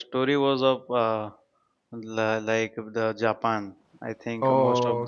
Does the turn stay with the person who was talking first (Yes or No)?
Yes